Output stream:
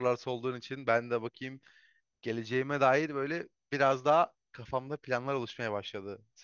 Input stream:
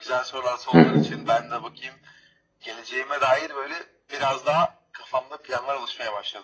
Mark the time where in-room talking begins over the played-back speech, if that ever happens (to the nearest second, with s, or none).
1 s